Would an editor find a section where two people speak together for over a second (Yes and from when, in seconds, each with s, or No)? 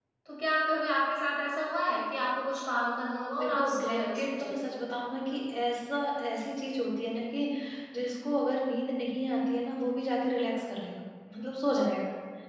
Yes, from 3.4 s